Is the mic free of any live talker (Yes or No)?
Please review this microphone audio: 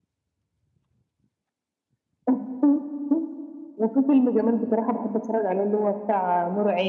Yes